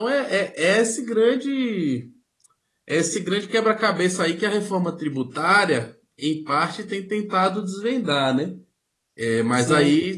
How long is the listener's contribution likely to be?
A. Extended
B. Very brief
A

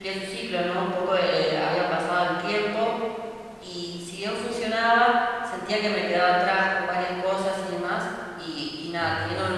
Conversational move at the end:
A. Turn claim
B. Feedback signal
B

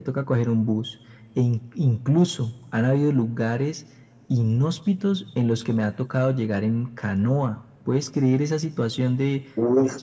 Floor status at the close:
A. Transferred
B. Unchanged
A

